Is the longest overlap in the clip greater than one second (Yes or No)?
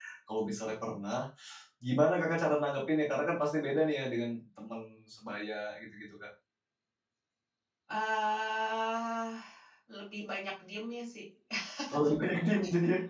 No